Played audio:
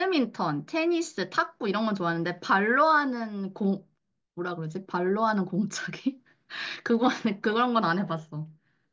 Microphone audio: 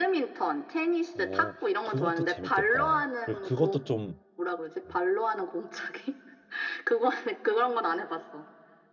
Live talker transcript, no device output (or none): 어, 그것도 재밌겠다. 그리고 그것도 좀 어,